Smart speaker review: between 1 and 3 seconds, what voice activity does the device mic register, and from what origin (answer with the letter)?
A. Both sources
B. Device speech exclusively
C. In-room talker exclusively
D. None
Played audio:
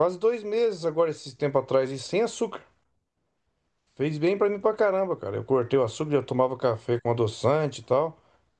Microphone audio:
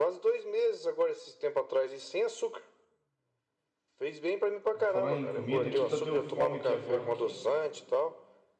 B